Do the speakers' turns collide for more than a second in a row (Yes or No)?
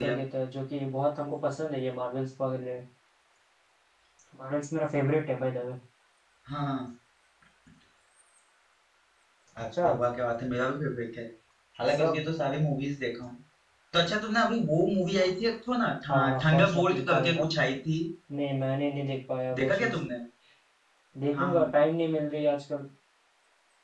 Yes